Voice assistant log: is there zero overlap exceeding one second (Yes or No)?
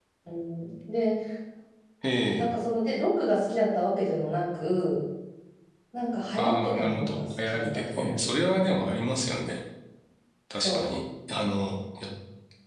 No